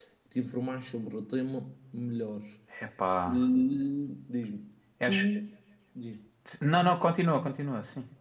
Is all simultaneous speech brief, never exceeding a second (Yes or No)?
Yes